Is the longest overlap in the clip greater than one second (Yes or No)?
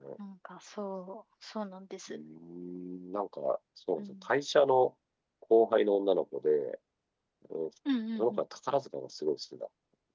No